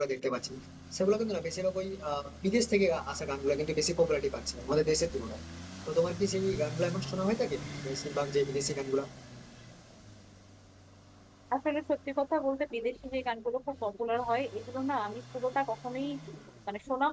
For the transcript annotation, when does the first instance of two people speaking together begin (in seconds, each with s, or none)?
none